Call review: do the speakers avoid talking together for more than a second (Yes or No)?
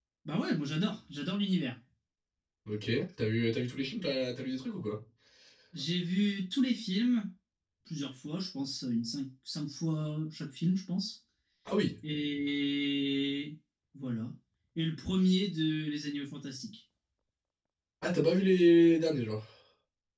Yes